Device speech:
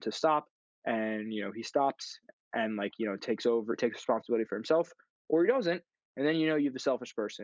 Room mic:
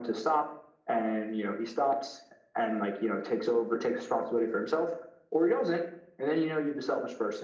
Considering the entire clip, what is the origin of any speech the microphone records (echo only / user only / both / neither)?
echo only